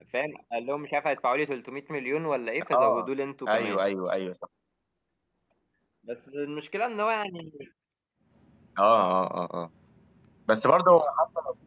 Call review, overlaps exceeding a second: none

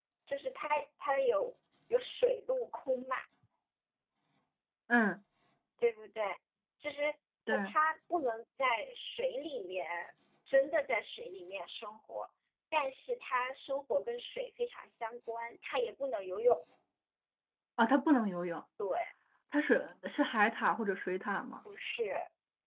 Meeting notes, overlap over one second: none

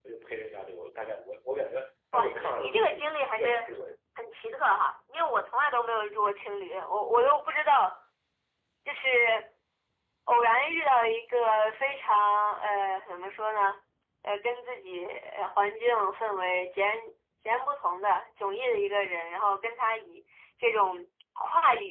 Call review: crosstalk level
present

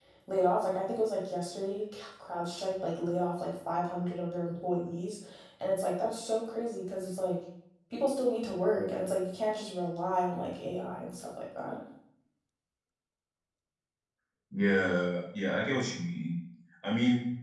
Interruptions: none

